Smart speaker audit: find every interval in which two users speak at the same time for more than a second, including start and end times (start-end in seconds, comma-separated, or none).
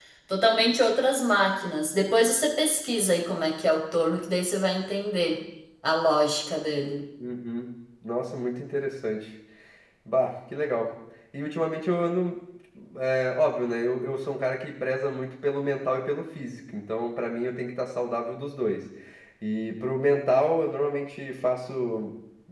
none